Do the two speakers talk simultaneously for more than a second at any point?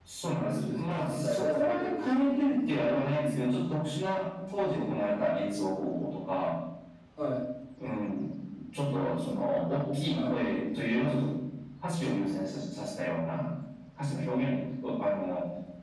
Yes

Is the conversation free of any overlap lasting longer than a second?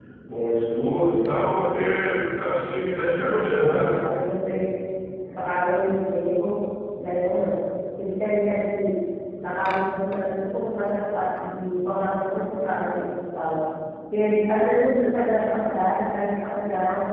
Yes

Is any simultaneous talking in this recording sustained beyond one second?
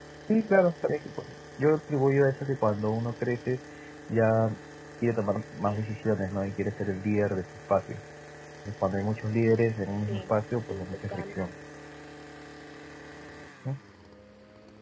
Yes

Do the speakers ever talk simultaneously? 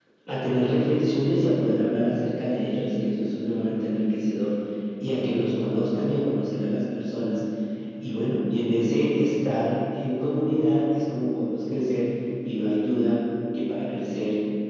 No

